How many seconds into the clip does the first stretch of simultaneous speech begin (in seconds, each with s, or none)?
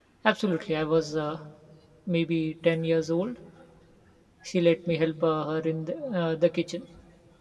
none